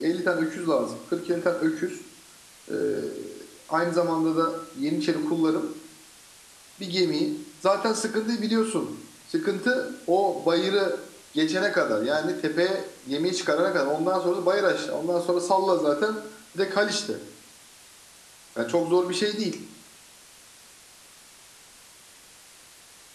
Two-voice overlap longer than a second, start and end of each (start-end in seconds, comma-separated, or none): none